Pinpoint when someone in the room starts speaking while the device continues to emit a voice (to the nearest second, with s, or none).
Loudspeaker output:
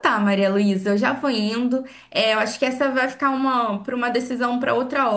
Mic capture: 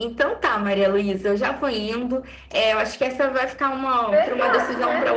4 s